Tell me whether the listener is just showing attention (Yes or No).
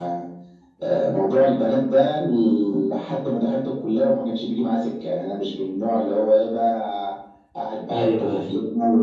Yes